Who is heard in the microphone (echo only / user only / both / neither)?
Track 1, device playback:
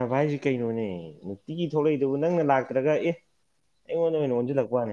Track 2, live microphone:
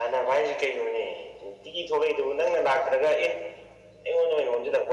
echo only